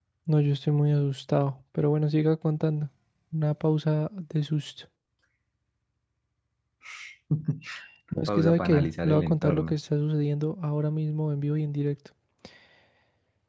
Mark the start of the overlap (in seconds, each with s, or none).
8.2 s